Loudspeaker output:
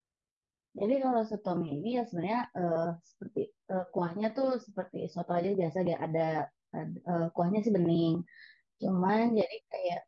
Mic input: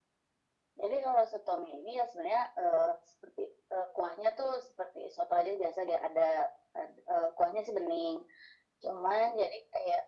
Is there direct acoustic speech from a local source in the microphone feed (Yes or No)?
No